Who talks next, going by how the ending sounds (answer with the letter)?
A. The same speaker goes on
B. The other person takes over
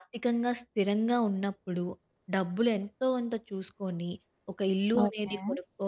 A